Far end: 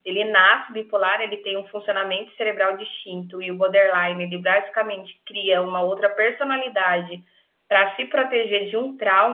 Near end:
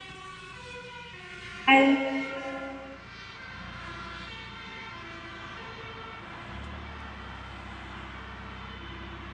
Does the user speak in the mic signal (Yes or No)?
Yes